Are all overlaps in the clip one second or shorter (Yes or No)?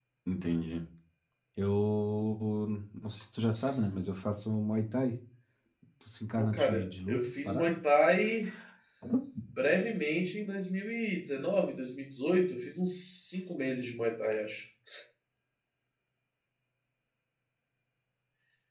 No